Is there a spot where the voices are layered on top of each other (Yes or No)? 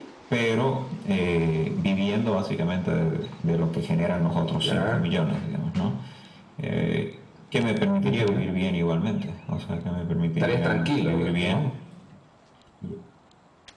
Yes